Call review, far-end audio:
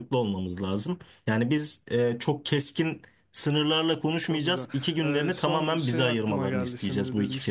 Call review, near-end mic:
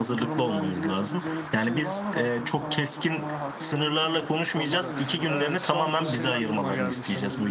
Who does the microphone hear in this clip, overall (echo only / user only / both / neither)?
both